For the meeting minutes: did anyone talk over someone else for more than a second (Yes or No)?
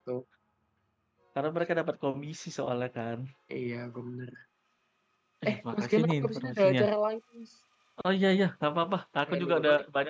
Yes